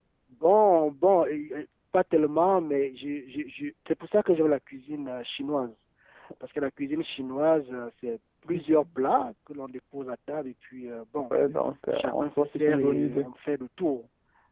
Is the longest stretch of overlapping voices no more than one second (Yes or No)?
No